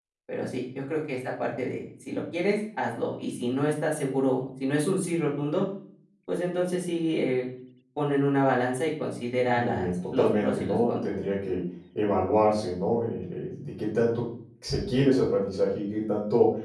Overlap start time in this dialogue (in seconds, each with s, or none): 9.5 s